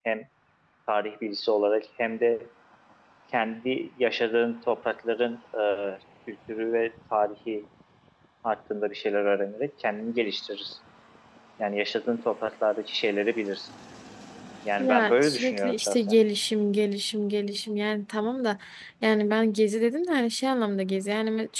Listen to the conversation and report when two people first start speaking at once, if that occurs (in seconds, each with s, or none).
14.8 s